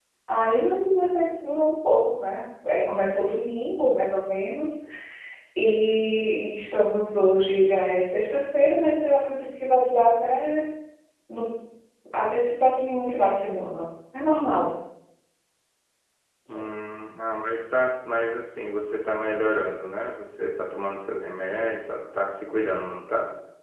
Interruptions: none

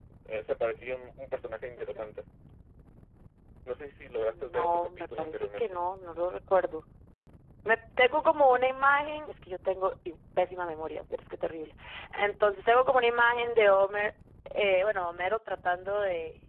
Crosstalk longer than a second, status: present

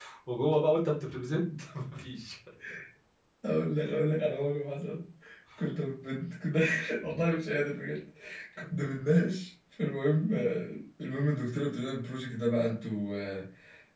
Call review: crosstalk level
none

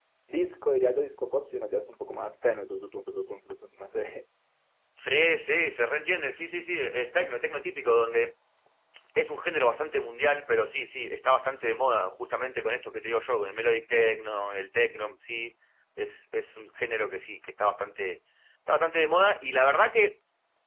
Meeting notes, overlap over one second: none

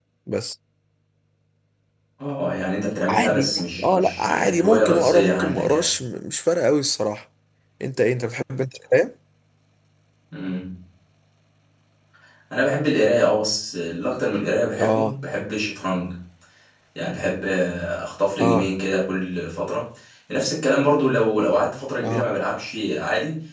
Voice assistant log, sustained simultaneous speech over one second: present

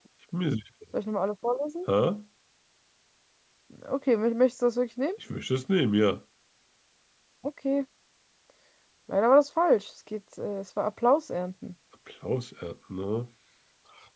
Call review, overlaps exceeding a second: none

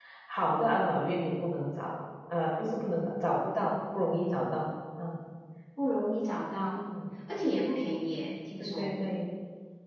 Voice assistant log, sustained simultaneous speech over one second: none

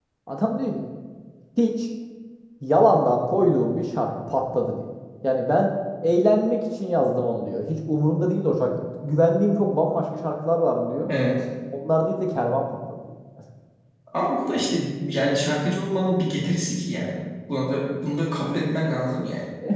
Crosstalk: none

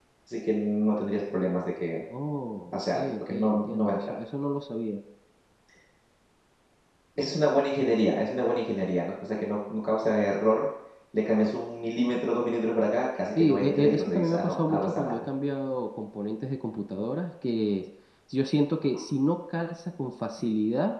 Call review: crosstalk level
present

